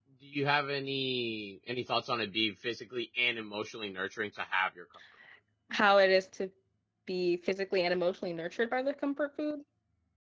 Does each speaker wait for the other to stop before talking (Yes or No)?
Yes